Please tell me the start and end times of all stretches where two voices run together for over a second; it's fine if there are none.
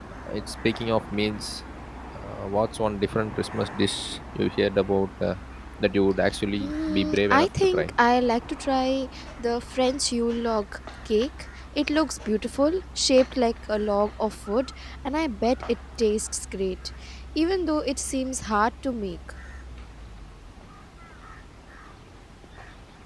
6.6-7.9

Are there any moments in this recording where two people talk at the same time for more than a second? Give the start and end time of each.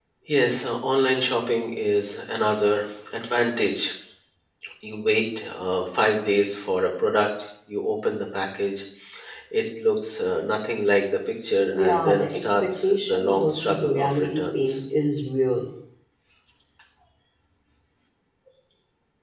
11.7-14.8

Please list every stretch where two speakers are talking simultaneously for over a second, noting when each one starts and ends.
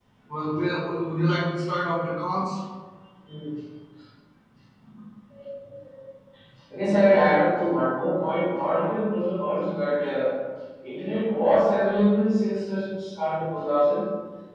none

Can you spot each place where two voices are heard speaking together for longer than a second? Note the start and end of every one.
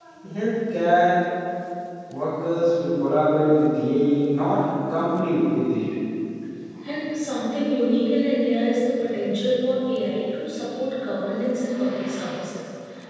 none

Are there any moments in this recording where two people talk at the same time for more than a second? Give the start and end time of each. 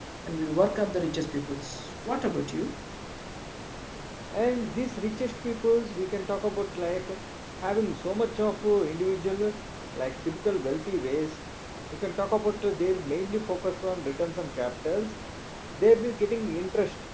none

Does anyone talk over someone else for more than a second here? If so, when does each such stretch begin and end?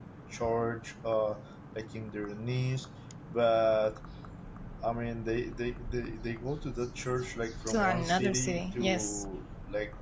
7.7-9.2

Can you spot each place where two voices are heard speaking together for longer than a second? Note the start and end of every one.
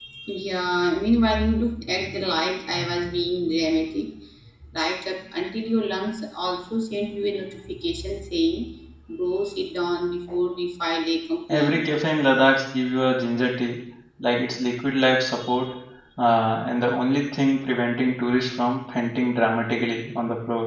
none

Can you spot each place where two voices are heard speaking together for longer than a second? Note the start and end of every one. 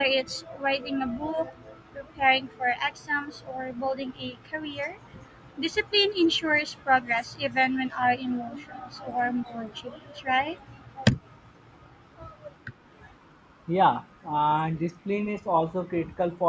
none

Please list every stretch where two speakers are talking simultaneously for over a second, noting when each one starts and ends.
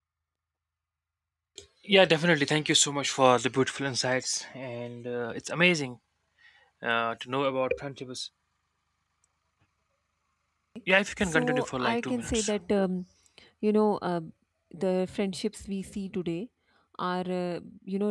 11.2-12.5

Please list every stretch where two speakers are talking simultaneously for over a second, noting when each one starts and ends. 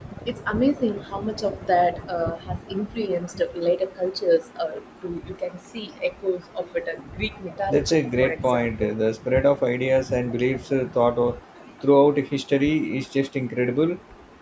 7.7-8.9

